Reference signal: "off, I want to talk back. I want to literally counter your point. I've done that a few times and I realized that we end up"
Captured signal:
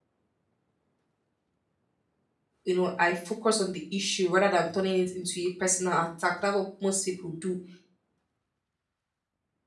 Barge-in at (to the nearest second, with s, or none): 3 s